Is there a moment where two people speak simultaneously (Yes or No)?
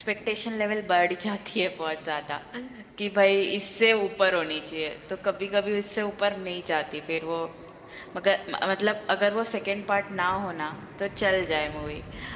No